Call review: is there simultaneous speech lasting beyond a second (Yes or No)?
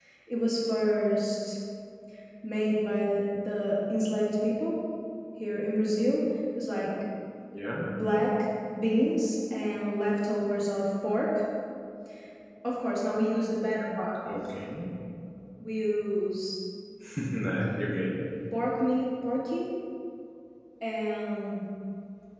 No